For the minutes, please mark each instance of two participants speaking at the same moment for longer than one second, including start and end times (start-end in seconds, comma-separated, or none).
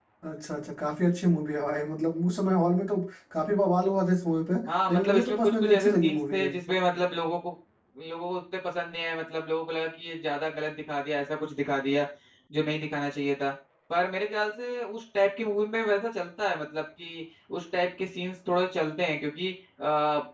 4.9-6.5